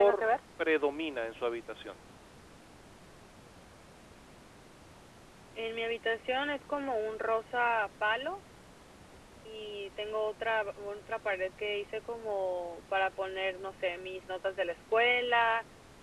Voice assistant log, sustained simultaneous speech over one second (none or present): none